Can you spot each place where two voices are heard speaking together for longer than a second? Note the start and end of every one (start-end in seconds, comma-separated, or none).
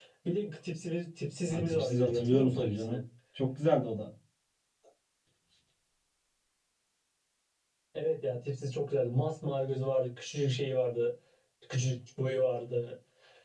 1.5-3.0